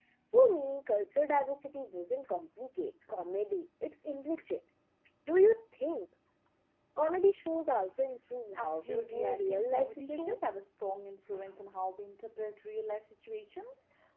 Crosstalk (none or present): present